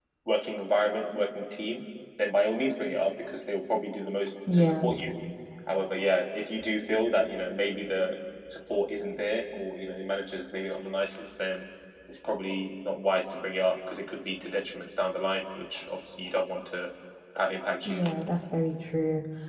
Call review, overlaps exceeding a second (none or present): none